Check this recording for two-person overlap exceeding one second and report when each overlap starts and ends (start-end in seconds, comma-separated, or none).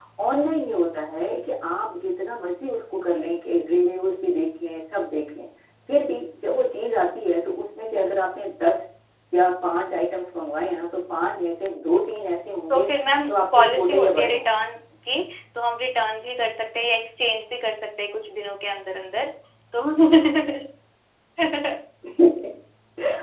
13.2-14.5